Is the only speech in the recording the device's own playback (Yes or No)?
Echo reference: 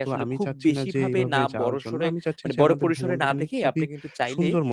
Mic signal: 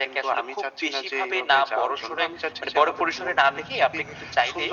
Yes